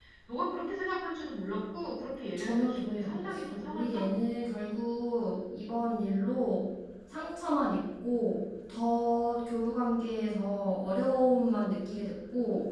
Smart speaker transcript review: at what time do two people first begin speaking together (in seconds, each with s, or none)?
2.4 s